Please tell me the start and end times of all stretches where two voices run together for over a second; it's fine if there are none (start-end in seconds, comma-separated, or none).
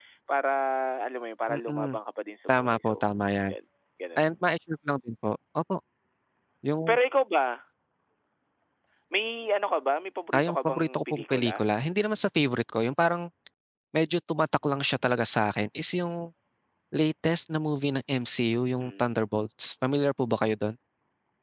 10.3-11.6